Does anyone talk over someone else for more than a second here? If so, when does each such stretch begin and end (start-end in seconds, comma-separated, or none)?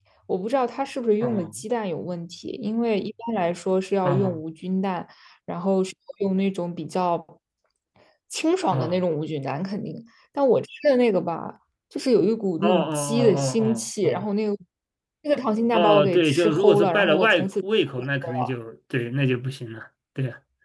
12.6-14.3, 15.7-17.5